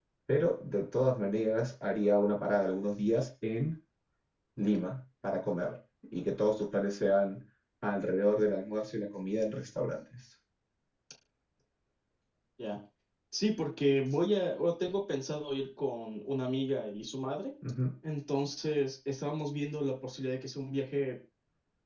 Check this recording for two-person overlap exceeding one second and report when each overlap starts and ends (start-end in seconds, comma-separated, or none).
none